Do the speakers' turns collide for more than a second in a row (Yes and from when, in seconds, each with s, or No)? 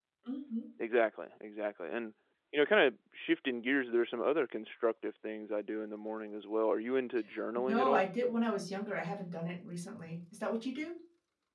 No